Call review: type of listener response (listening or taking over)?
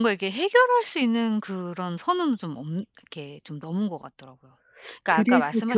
taking over